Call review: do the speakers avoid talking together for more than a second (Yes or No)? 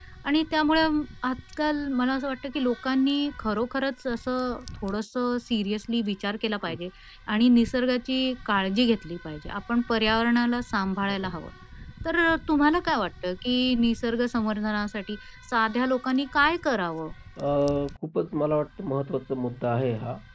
Yes